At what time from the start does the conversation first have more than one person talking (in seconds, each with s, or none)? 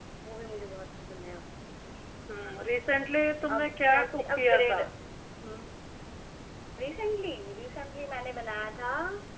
3.5 s